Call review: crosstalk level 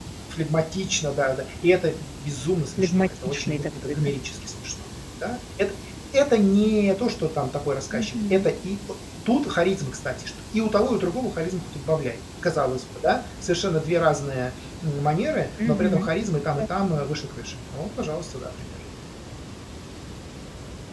present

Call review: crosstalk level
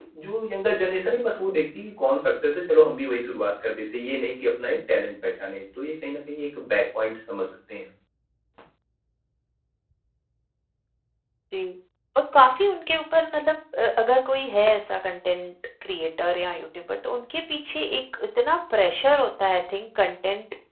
none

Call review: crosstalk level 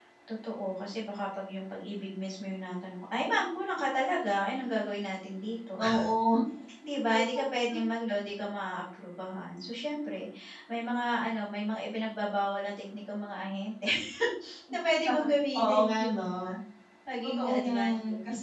present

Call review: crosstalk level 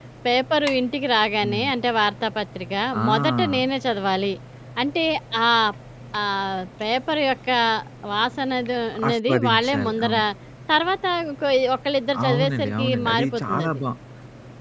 present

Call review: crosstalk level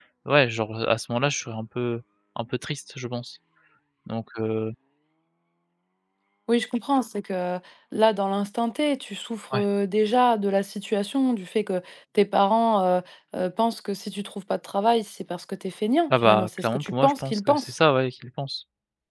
present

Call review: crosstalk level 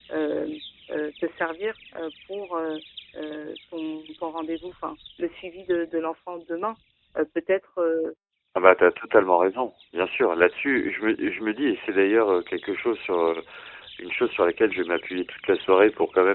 none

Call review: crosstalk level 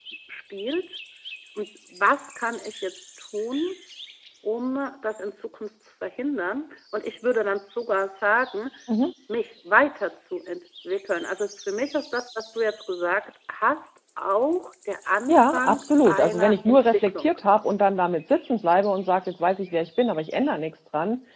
present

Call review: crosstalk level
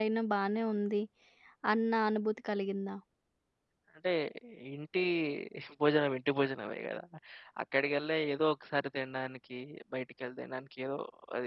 none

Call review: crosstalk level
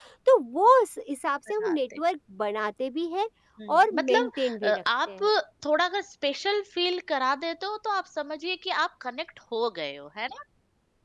present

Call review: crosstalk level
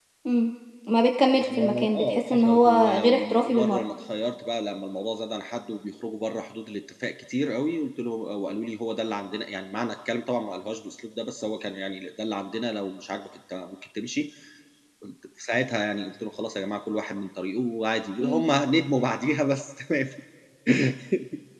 present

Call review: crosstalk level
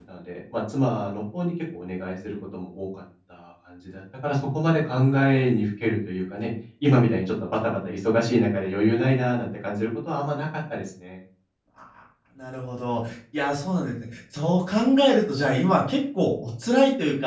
none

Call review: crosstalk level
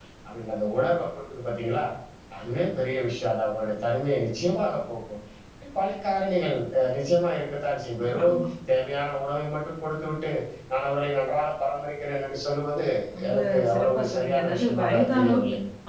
present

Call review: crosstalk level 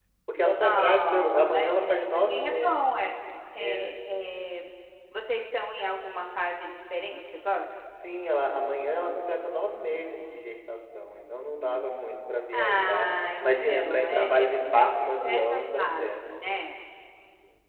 present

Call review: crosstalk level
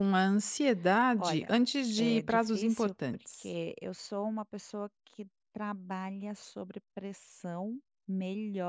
present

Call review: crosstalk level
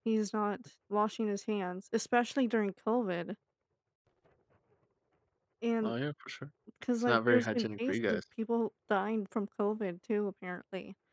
present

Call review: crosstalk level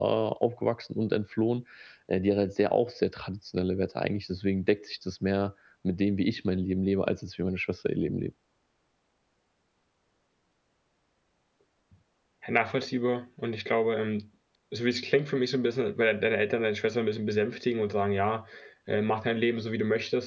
none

